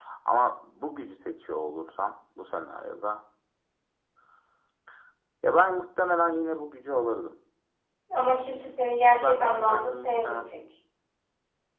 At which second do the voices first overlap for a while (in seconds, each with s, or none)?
9.1 s